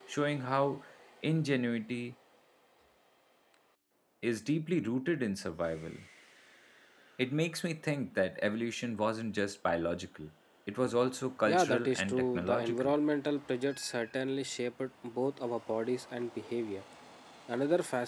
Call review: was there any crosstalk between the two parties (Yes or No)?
Yes